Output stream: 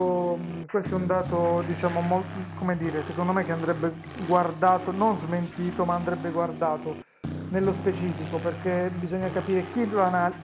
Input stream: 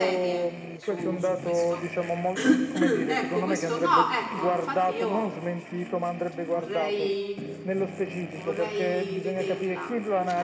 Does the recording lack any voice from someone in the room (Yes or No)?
No